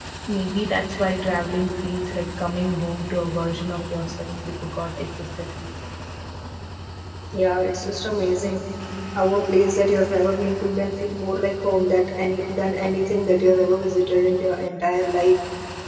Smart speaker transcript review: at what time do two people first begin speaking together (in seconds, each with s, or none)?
none